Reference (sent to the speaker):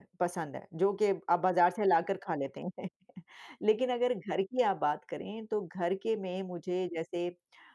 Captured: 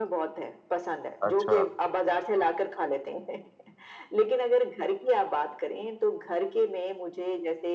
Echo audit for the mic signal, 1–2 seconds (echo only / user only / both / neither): both